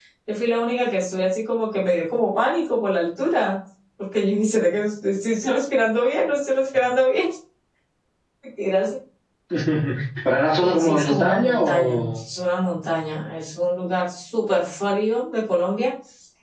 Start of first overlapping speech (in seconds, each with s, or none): 10.6 s